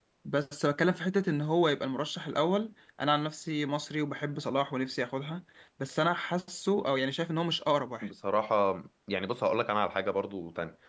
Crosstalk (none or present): none